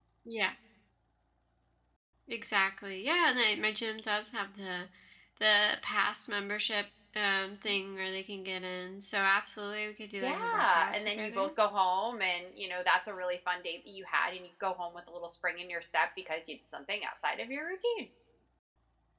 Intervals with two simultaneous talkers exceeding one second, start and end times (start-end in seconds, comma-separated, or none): 10.2-11.5